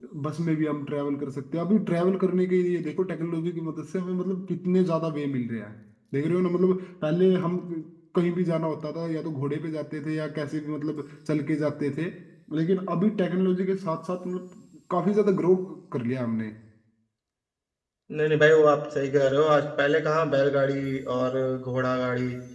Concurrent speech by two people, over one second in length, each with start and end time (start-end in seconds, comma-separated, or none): none